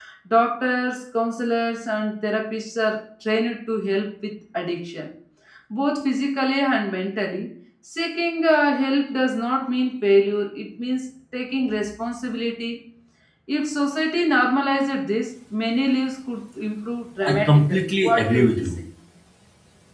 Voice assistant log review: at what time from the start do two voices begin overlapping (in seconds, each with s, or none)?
17.2 s